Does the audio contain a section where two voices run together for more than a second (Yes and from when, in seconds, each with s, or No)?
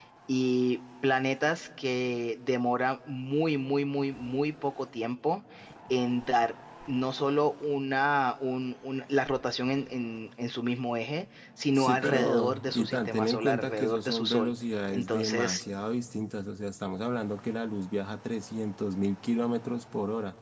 Yes, from 11.8 s